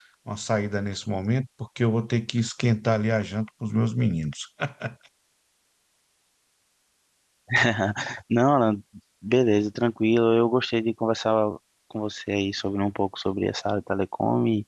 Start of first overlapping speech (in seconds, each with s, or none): none